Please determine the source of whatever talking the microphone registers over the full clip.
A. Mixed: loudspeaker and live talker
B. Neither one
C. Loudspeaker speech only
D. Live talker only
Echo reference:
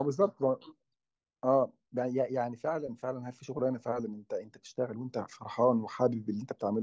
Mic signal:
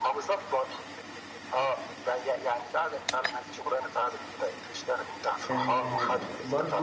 A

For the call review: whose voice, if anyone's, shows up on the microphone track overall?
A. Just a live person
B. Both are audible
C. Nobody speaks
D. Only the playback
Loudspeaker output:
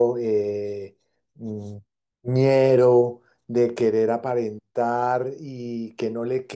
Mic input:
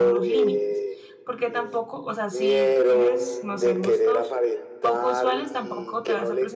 B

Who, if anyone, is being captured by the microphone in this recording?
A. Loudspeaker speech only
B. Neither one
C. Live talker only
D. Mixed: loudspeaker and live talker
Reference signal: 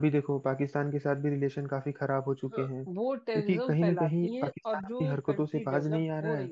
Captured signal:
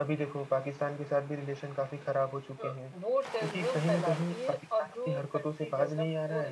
A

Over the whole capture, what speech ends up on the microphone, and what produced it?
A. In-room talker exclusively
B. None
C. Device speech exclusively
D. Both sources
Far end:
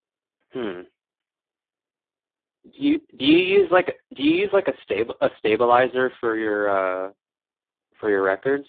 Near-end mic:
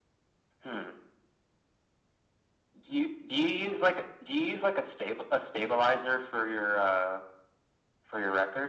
C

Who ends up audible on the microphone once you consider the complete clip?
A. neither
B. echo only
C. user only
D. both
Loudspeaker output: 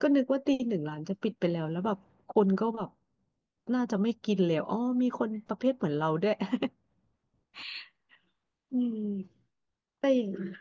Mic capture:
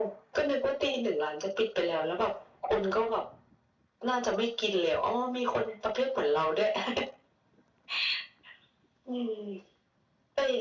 B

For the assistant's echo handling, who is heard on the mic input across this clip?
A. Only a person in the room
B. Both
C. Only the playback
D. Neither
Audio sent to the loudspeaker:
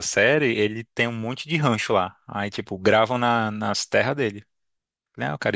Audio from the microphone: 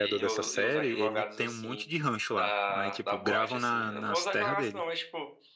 B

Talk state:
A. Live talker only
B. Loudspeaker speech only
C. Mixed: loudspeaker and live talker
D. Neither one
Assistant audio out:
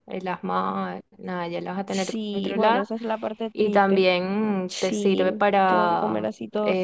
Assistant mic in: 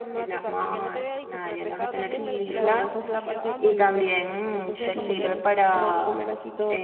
C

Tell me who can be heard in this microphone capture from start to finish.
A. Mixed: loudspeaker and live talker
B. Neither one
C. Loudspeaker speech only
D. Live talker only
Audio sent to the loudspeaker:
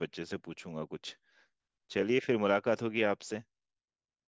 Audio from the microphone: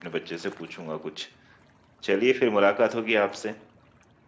C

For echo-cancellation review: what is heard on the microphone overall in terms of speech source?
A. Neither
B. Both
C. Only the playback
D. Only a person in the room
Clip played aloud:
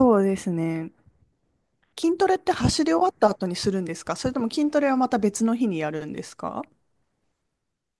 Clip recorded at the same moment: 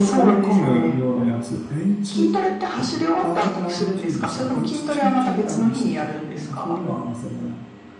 B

